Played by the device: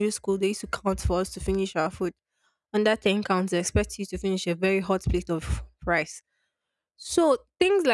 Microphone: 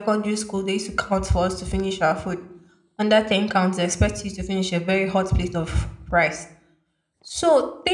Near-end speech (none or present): none